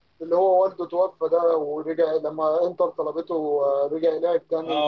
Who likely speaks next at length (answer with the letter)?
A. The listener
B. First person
A